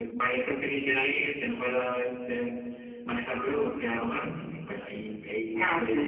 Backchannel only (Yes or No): No